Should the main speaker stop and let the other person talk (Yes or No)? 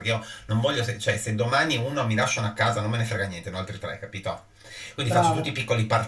No